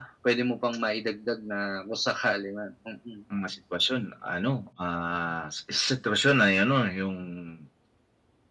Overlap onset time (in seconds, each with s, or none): none